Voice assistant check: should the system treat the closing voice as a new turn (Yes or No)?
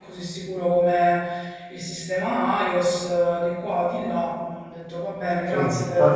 Yes